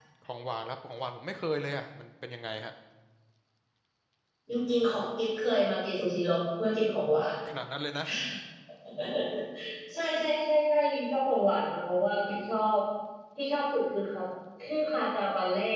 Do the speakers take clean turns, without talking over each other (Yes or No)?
Yes